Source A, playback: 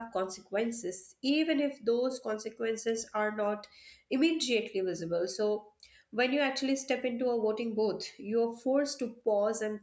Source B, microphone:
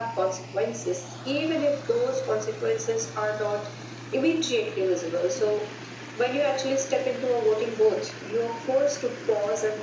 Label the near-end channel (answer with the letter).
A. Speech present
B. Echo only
B